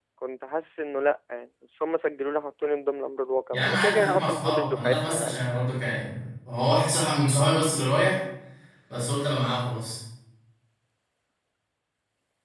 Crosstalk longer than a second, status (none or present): present